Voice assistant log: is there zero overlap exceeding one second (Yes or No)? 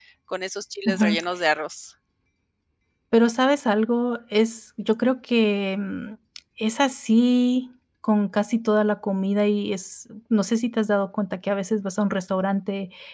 Yes